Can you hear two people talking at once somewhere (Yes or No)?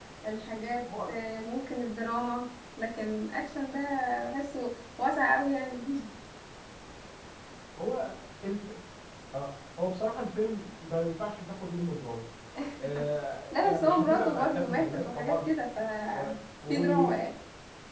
Yes